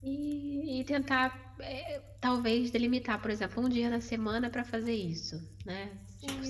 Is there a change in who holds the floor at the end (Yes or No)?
Yes